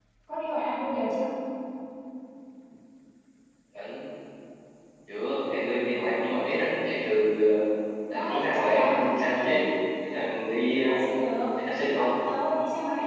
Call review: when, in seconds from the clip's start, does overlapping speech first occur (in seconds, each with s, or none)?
8.1 s